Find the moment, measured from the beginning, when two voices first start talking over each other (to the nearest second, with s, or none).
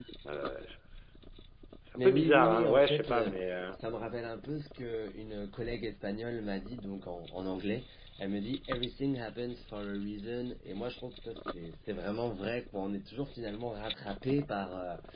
2 s